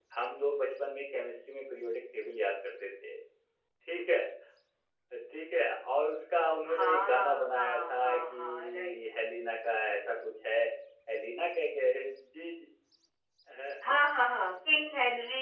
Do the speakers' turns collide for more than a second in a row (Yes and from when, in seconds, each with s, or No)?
Yes, from 6.7 s